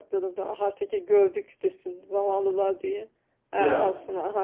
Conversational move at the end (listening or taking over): listening